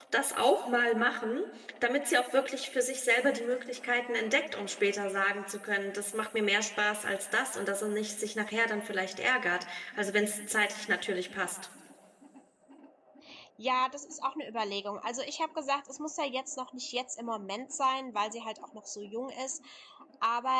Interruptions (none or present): none